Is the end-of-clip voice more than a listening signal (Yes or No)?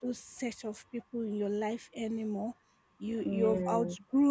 No